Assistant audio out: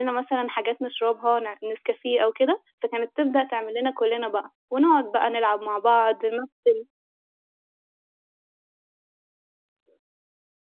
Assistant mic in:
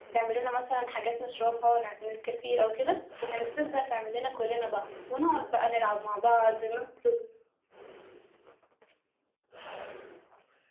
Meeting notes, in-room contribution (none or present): none